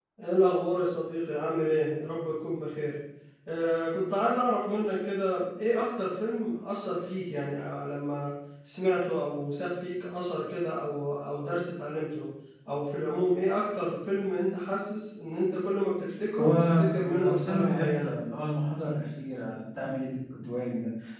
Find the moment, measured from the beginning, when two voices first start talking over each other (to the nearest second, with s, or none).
16 s